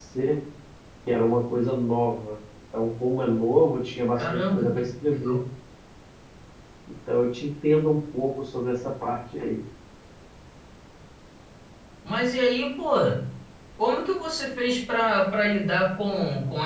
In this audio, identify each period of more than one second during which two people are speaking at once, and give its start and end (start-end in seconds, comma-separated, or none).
4.2-5.4